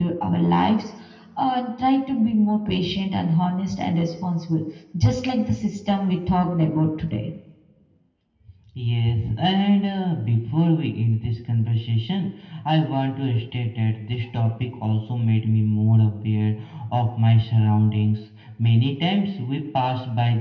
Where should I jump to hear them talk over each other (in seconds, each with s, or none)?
none